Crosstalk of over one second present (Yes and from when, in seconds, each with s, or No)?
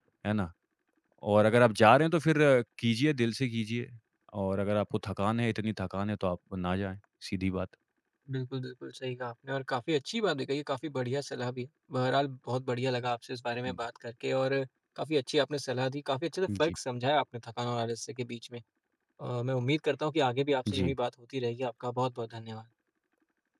No